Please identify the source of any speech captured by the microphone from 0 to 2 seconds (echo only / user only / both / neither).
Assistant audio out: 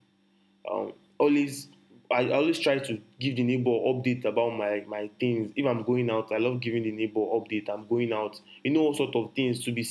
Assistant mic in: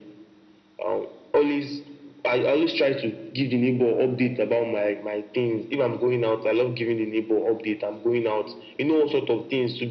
echo only